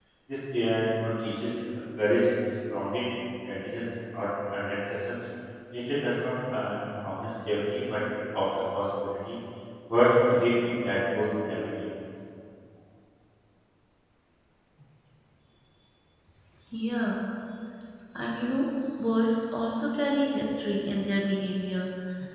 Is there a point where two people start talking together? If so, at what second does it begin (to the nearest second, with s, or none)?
none